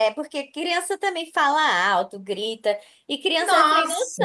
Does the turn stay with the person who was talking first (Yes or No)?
Yes